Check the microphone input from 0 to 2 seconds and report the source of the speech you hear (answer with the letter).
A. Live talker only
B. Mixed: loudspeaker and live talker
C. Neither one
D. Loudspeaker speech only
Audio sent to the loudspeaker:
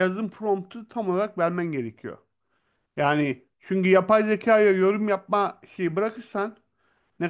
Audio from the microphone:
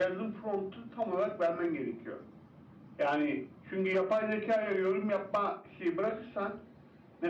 D